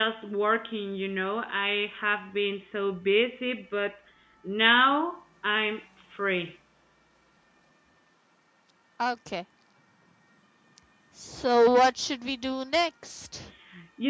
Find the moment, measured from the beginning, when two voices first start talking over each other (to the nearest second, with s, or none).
none